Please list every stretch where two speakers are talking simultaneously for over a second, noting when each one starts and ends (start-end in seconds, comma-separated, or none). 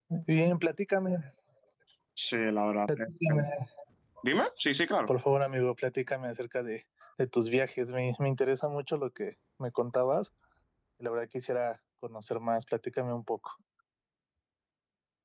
none